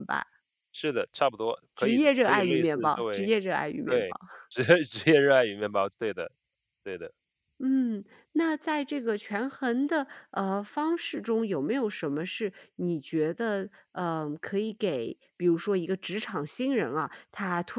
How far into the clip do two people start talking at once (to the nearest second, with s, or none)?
2 s